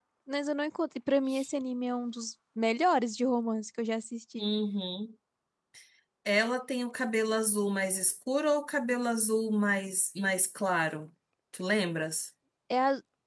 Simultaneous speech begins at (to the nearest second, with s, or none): none